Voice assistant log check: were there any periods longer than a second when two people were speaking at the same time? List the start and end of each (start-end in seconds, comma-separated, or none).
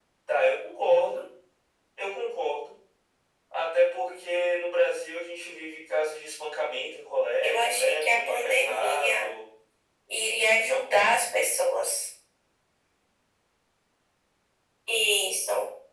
7.4-9.3